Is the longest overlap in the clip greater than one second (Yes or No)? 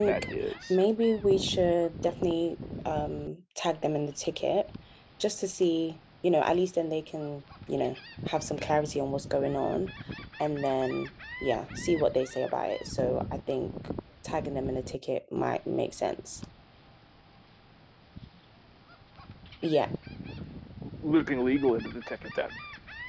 No